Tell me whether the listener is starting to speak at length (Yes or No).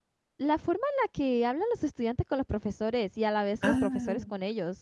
No